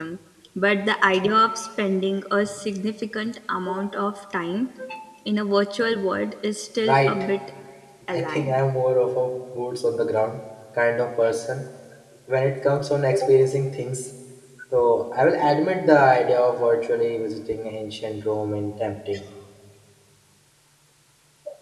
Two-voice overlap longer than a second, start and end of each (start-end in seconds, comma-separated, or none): none